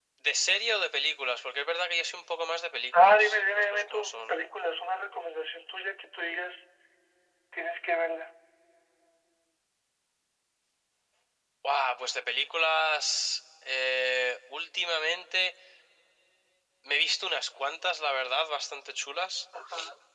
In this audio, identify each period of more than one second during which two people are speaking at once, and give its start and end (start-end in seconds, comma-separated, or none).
3.0-4.4